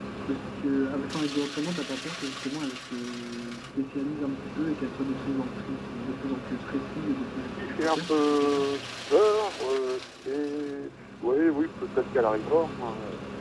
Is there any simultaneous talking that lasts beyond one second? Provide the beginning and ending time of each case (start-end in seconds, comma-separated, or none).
7.4-8.7